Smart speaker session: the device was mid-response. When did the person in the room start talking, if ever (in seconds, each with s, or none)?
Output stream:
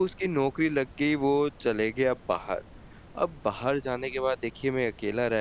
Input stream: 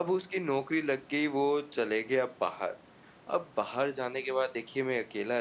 none